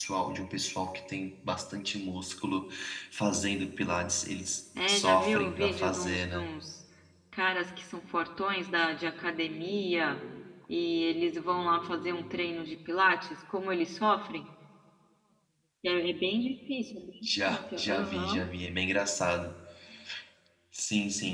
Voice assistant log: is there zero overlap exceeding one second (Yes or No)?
No